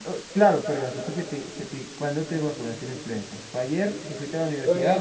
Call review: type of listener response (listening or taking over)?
taking over